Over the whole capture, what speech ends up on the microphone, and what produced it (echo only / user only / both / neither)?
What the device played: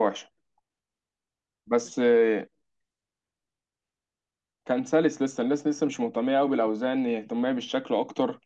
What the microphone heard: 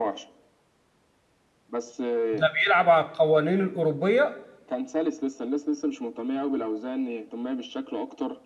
both